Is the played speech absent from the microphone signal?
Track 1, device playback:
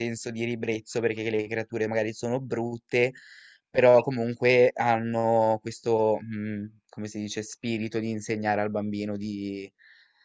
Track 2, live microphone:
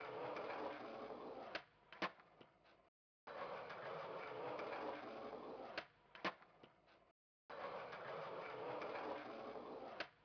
Yes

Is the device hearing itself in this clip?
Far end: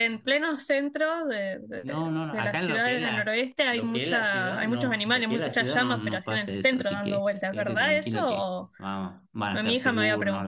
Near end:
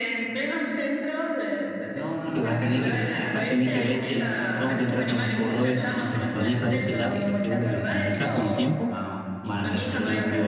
Yes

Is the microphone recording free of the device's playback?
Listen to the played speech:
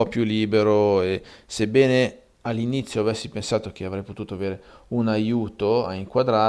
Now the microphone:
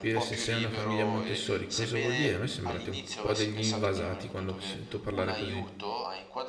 No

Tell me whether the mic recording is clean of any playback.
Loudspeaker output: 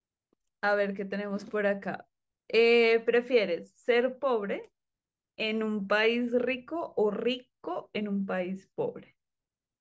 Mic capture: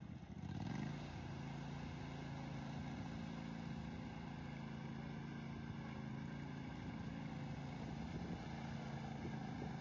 Yes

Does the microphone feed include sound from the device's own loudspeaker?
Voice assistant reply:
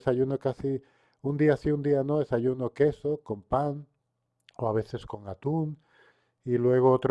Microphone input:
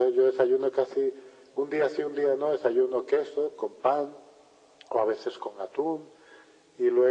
Yes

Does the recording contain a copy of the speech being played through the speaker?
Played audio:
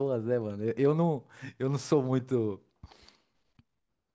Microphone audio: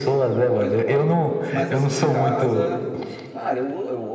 Yes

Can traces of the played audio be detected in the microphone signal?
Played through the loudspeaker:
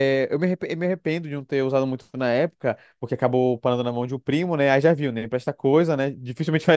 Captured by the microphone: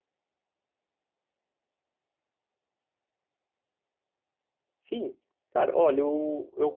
No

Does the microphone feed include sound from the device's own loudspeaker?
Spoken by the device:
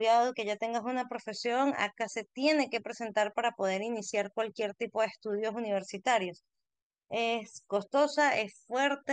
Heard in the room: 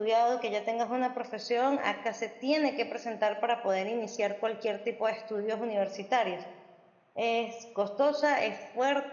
Yes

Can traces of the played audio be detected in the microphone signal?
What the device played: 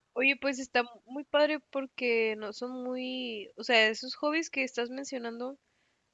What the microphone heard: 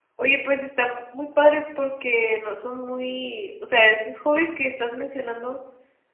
Yes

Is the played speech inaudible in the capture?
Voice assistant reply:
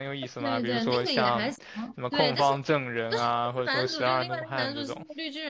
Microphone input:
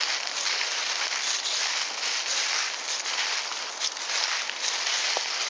Yes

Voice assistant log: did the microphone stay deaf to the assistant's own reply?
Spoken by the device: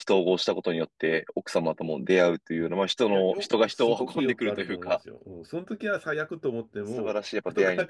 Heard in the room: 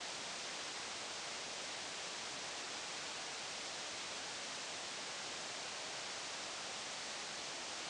Yes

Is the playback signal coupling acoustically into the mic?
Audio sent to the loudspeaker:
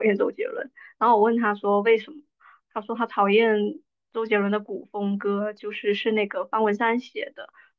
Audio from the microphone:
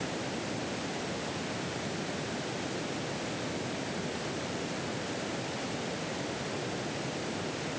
No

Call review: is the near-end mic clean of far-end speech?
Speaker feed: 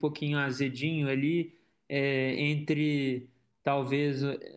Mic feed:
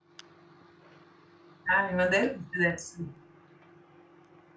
Yes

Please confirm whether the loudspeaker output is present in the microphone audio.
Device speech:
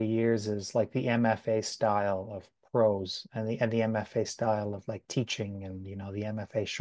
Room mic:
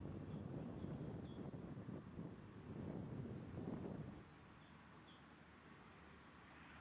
No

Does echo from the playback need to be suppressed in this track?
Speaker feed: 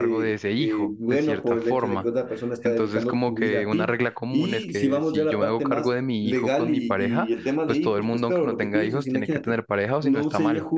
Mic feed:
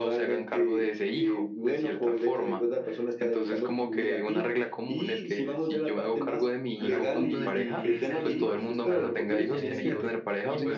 Yes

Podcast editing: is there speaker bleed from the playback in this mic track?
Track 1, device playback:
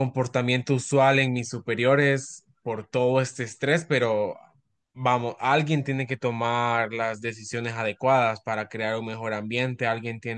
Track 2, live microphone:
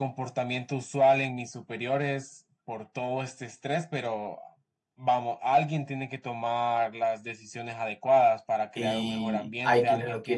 Yes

